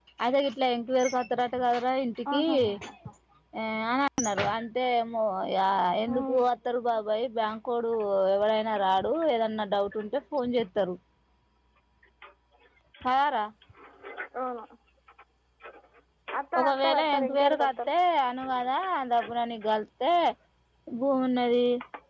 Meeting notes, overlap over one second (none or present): present